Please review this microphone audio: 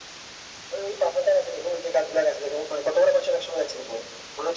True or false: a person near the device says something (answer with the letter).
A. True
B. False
B